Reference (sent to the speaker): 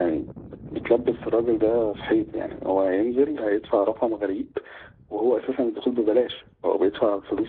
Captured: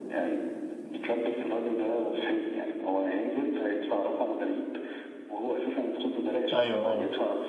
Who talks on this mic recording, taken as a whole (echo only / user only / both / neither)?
both